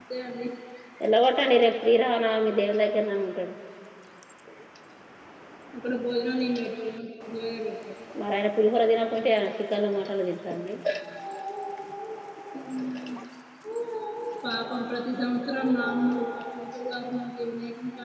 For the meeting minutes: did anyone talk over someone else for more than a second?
No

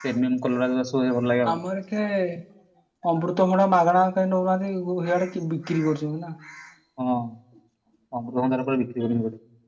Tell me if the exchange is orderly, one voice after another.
Yes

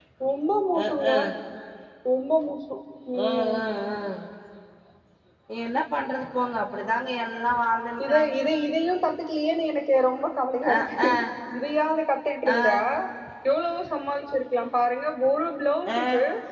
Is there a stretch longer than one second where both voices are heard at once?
No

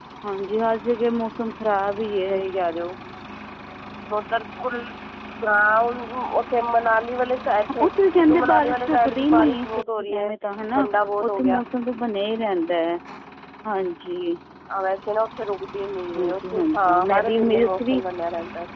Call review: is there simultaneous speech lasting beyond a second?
Yes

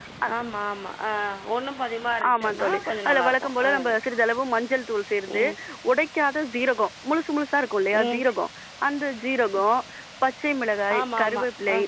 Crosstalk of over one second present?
Yes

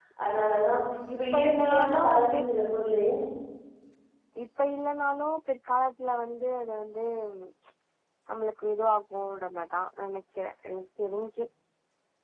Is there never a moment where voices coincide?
No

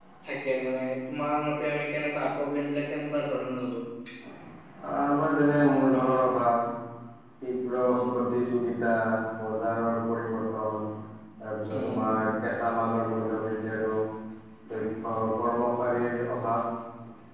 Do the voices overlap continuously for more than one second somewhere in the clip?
No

